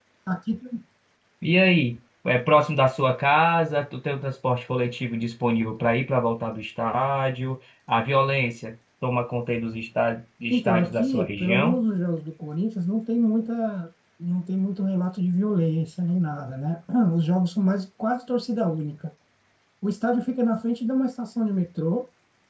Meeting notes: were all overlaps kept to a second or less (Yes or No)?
No